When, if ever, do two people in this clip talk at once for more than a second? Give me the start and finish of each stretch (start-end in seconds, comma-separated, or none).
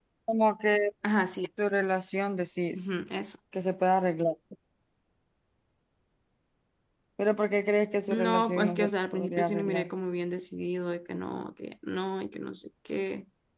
8.1-9.9